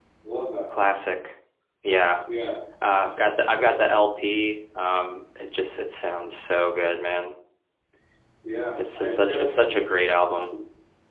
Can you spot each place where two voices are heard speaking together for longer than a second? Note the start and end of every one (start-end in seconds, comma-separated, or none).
8.8-10.1